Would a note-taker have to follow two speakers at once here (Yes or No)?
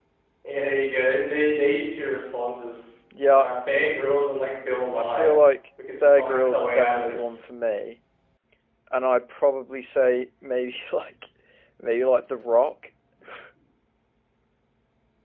Yes